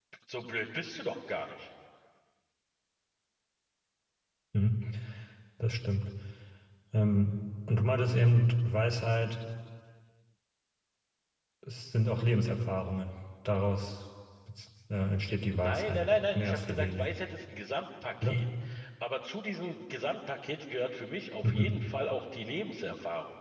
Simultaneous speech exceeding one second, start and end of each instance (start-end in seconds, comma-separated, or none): 15.6-17.1